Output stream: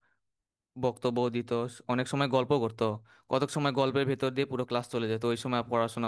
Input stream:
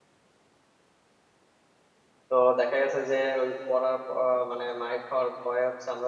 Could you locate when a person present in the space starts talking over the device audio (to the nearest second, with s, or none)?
2 s